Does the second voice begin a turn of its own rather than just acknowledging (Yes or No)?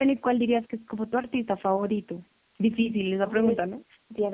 Yes